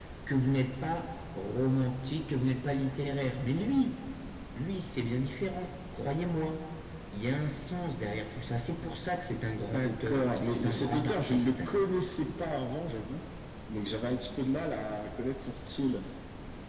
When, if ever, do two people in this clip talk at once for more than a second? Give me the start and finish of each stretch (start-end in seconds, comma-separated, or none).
9.7-11.6